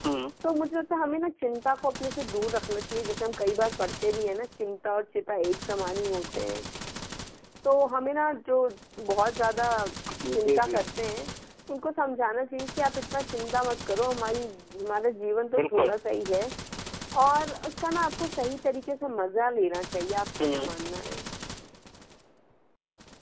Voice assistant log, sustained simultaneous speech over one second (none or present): none